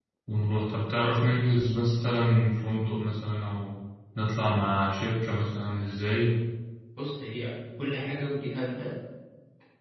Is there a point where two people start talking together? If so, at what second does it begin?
none

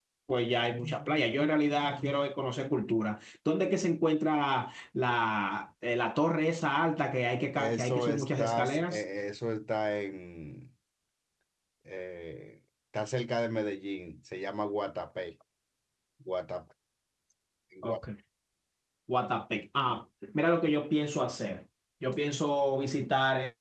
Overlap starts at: 7.6 s

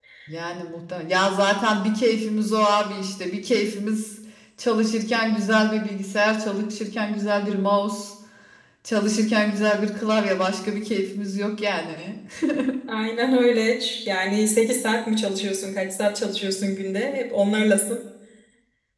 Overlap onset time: none

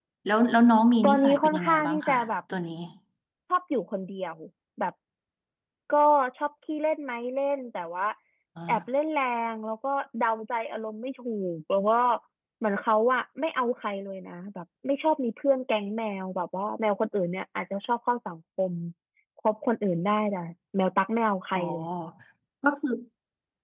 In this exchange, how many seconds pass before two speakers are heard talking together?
1.0 s

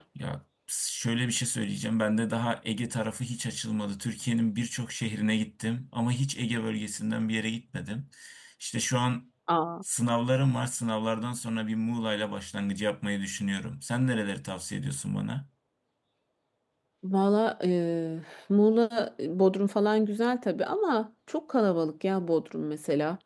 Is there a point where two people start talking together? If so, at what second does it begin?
none

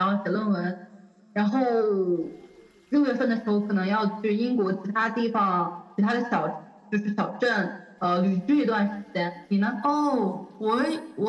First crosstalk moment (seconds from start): none

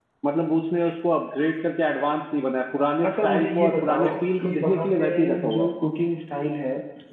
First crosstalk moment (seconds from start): 3.0 s

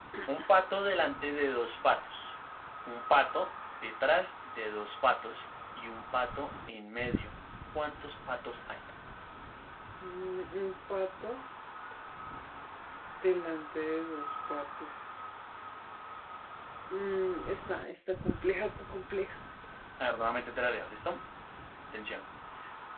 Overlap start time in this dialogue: none

